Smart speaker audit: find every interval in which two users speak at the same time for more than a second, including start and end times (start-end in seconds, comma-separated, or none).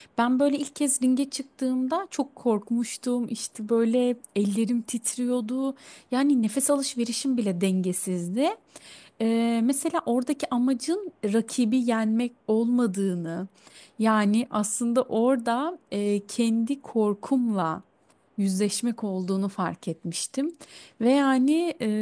none